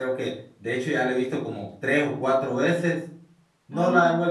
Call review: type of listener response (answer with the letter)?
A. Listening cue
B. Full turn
A